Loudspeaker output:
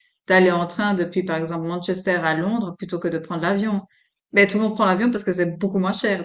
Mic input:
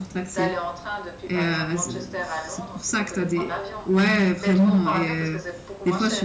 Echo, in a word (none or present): present